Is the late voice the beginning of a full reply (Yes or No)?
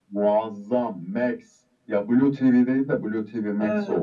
Yes